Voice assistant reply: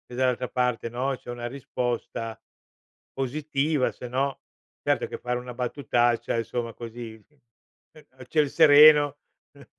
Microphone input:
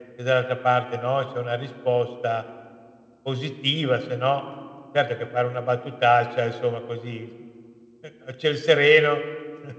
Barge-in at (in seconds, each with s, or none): none